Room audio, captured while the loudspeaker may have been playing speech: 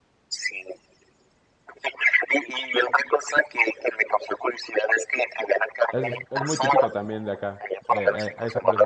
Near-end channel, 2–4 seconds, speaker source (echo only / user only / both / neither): echo only